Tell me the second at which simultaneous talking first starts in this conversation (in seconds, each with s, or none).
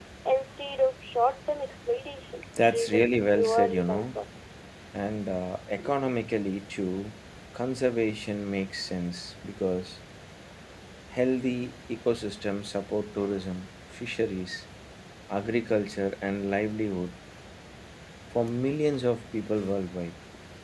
2.6 s